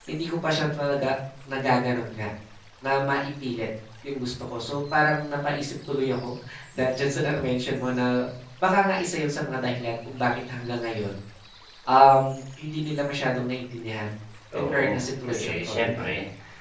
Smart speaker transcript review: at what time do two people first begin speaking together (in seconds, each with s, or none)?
14.5 s